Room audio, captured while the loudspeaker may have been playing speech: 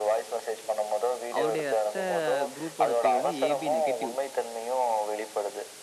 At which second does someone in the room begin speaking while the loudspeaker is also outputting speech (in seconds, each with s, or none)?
1.4 s